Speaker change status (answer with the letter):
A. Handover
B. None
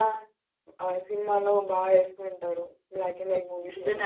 A